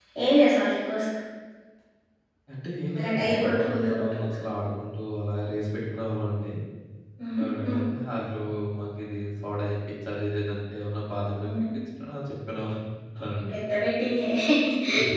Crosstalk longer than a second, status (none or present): present